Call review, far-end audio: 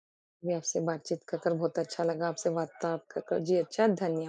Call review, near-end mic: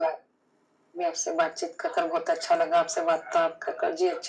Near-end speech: none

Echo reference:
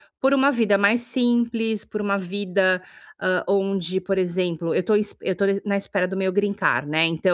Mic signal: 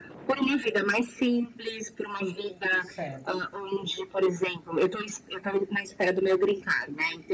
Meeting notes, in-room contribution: present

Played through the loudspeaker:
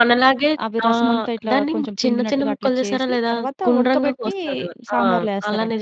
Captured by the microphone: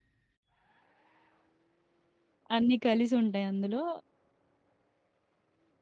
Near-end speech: present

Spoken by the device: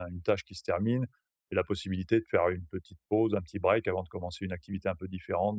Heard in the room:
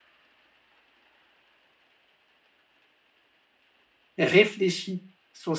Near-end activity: present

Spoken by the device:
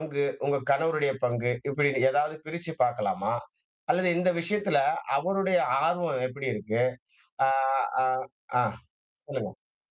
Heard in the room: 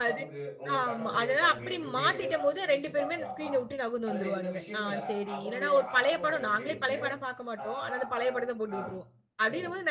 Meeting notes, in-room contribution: present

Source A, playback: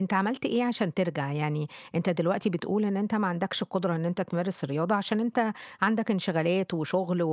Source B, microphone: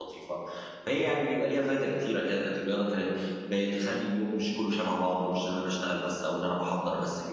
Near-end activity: present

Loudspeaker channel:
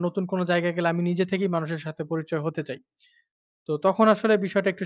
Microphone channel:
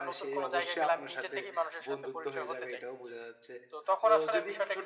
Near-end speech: present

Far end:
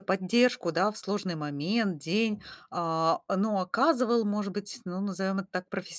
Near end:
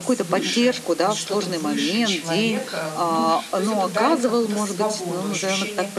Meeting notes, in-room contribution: present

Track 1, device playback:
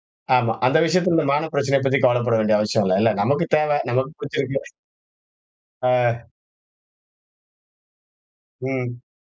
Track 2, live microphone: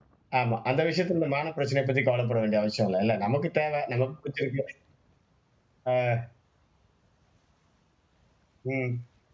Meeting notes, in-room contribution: none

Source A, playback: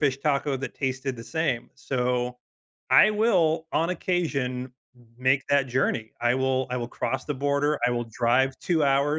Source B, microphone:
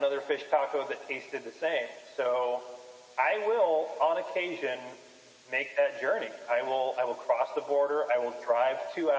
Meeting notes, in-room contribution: none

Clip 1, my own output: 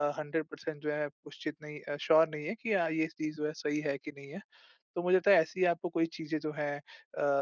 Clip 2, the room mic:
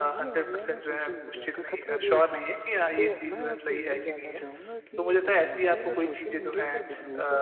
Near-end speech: present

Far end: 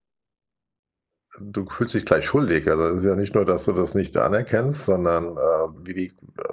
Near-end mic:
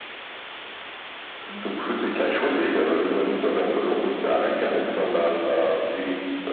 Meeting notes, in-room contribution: none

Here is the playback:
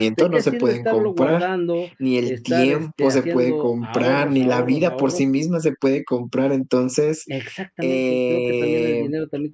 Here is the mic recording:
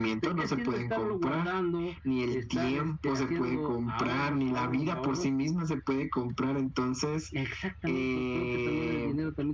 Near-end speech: none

